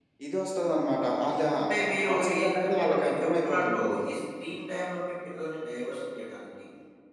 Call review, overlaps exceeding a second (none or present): present